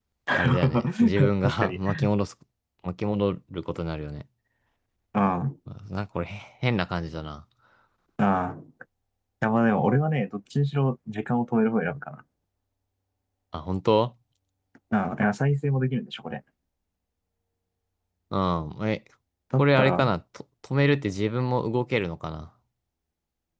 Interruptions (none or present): present